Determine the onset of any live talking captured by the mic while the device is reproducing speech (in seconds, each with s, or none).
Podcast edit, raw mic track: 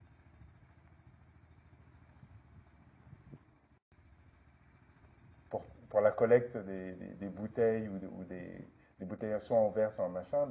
5.5 s